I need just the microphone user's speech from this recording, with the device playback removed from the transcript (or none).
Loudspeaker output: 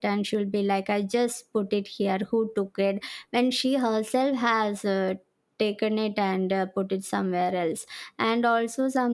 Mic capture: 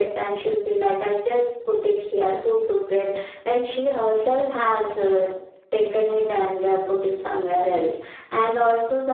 none